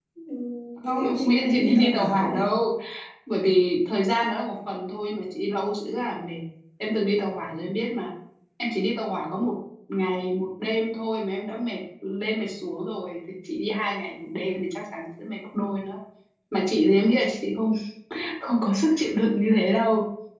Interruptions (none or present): present